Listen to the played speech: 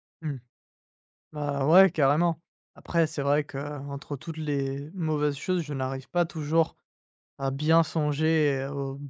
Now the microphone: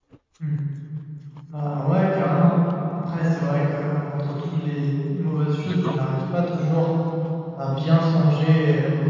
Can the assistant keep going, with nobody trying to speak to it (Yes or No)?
No